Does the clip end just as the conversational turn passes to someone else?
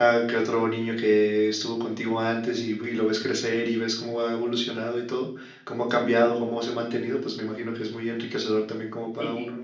Yes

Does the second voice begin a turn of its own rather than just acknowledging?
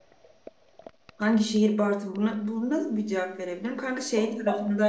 No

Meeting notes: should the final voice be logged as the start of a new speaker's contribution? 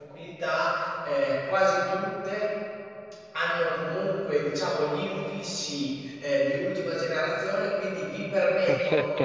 No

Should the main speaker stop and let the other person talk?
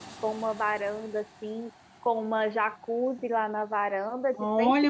Yes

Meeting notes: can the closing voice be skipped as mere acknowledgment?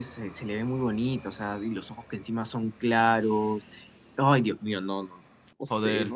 No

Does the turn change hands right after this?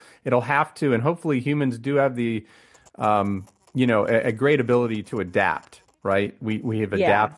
No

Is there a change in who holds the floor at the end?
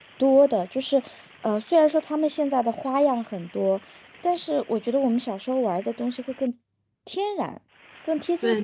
Yes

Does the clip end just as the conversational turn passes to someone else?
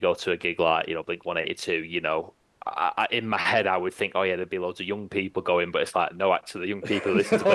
No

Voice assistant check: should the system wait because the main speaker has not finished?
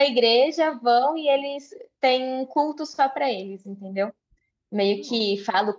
Yes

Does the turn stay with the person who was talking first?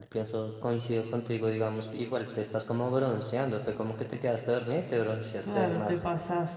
No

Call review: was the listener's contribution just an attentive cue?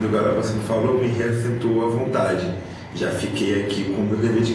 Yes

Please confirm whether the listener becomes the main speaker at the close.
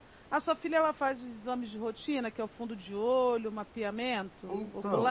Yes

